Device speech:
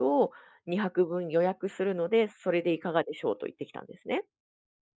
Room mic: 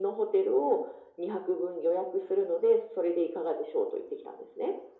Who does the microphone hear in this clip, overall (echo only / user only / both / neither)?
echo only